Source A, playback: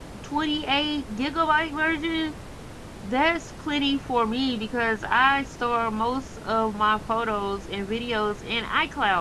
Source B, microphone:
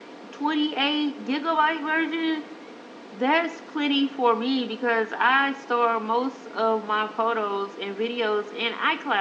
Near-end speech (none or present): none